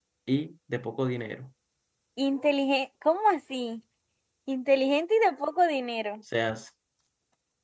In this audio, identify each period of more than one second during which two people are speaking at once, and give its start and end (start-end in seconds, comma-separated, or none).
none